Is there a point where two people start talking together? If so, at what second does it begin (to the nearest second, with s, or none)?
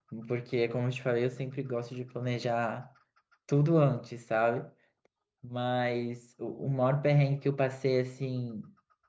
none